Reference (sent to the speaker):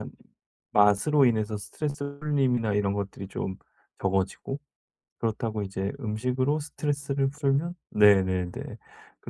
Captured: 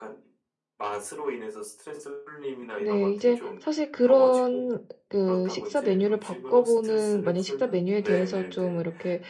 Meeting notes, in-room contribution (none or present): present